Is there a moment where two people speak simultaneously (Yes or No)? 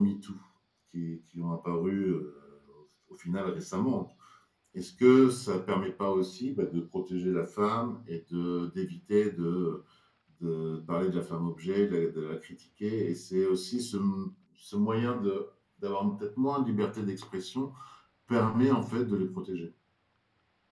No